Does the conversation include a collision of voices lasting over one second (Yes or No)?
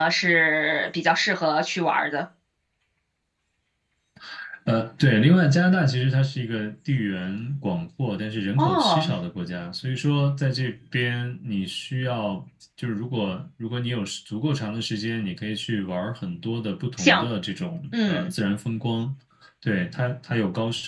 No